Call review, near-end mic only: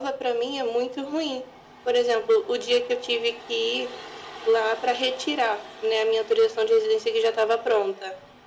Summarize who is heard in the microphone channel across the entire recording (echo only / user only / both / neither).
echo only